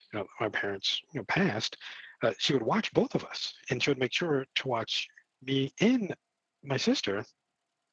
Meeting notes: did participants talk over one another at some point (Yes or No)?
No